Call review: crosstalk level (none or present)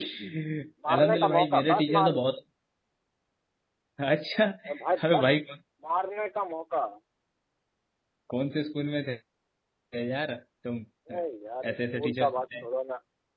present